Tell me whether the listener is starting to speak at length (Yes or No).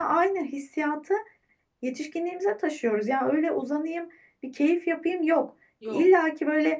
No